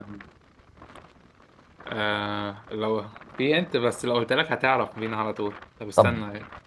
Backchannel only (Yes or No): No